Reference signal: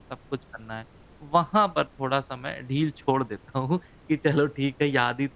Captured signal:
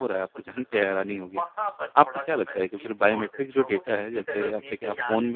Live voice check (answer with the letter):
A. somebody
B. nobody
A